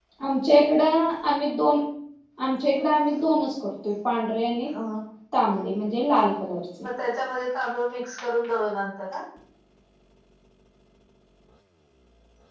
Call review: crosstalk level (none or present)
none